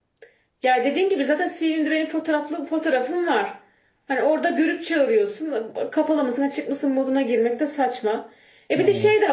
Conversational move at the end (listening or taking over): listening